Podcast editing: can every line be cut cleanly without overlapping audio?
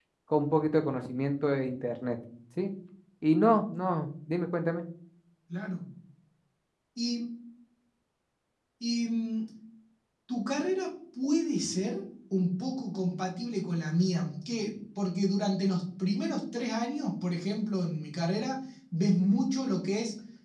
Yes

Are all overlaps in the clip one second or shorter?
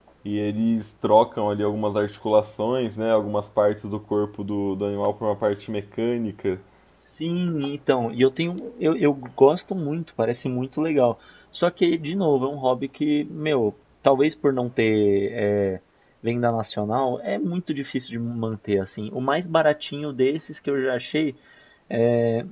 Yes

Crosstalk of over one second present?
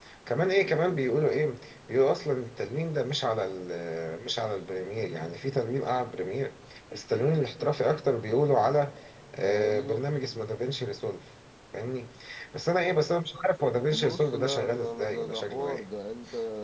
Yes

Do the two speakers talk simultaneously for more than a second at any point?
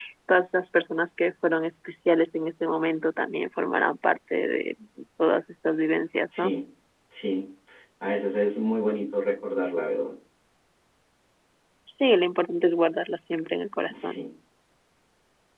No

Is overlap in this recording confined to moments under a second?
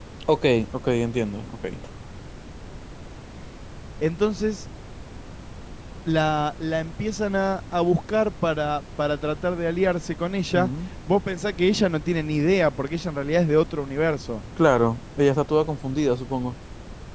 Yes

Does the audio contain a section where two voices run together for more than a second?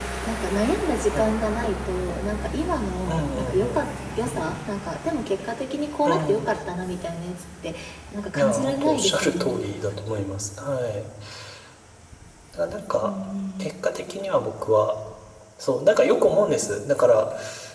Yes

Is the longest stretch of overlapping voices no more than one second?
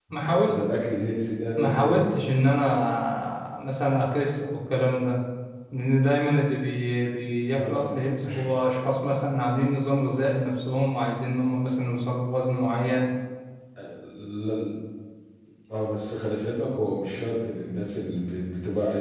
Yes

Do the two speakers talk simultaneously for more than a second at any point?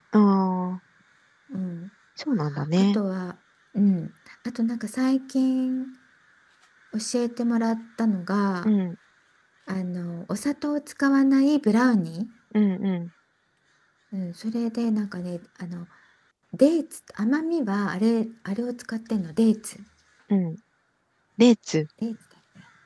No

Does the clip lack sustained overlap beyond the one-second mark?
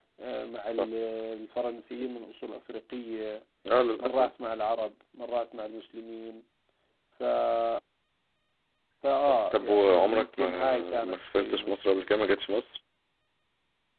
No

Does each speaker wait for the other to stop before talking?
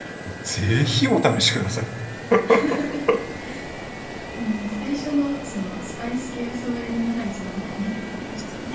Yes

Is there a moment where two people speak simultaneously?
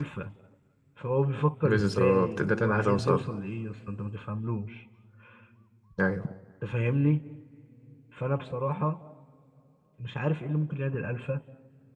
Yes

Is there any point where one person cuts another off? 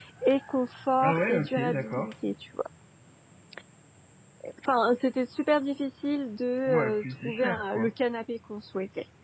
Yes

